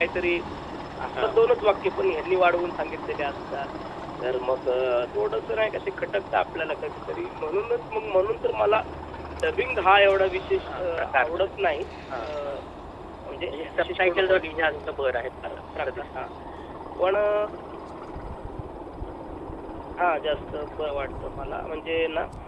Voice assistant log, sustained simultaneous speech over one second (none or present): present